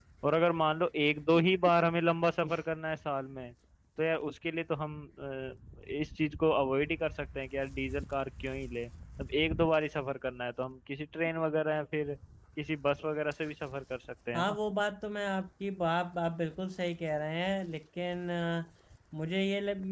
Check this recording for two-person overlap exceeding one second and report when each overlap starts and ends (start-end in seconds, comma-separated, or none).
none